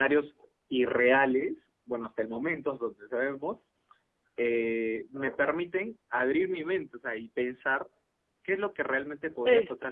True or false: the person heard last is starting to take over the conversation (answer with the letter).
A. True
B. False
B